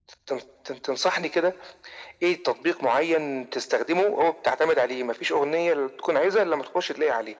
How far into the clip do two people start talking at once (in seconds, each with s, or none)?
none